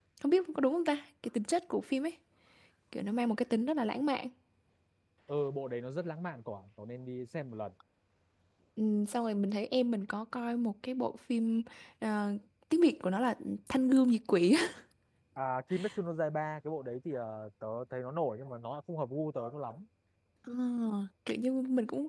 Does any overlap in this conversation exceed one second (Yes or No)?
No